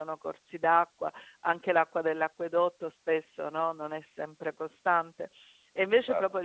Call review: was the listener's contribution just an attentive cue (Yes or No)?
Yes